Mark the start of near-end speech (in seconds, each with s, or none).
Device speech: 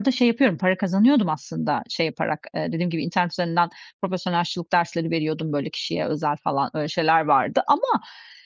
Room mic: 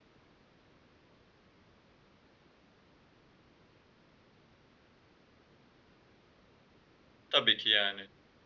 7.3 s